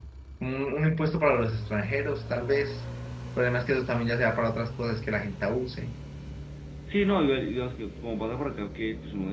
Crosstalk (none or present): none